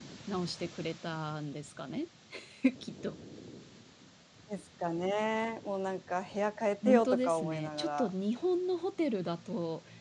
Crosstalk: present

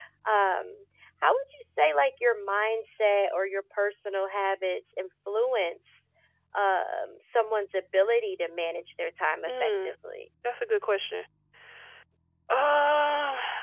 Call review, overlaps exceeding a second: none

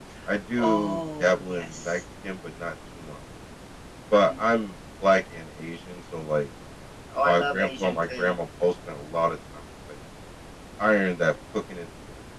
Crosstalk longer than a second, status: present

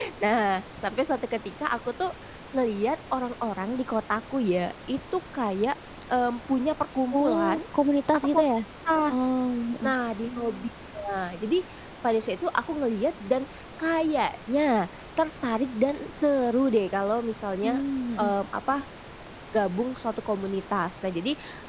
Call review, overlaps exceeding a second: none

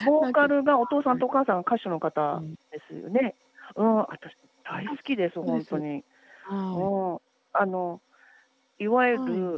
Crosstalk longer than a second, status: none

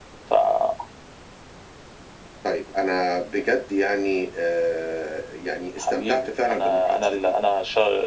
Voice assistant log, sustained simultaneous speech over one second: present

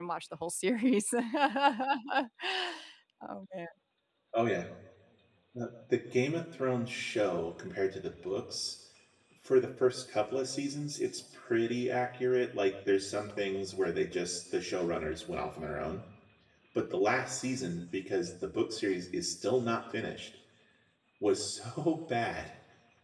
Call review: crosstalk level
none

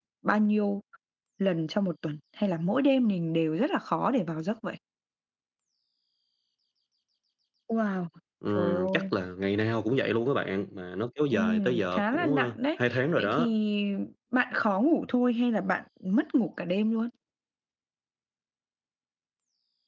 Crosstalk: present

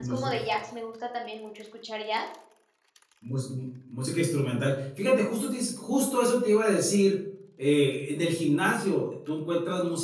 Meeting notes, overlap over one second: none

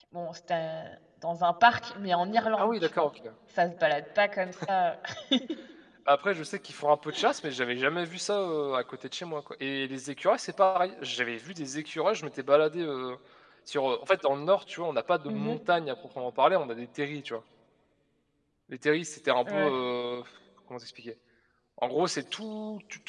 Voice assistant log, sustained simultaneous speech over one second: none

